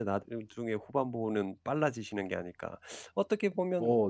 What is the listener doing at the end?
listening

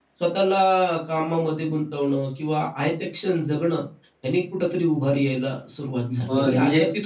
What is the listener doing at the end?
taking over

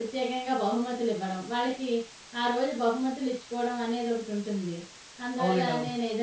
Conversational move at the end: listening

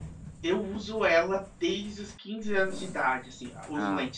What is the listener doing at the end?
listening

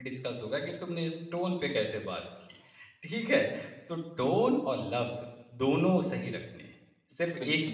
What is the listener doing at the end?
taking over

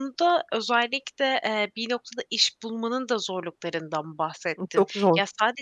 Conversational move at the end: listening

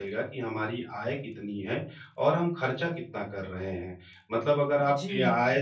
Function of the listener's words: listening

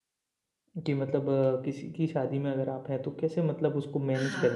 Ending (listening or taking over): taking over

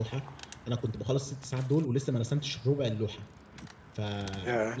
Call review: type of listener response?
listening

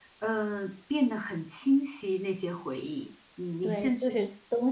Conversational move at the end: taking over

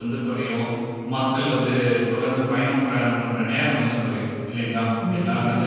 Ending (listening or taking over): listening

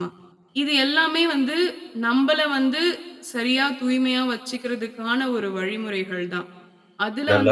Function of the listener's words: listening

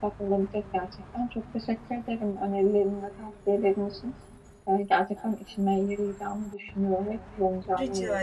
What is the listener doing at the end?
taking over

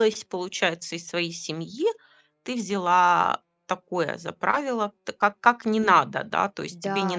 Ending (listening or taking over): listening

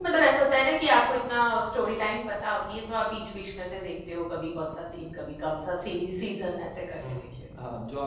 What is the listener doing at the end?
taking over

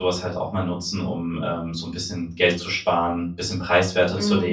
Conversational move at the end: listening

